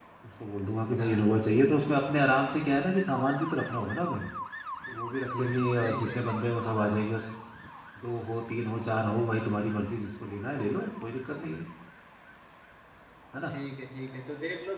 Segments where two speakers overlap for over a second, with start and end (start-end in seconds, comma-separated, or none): none